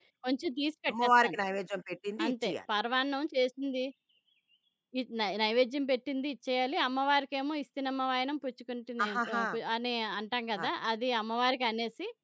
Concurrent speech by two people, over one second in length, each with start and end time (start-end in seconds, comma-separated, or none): none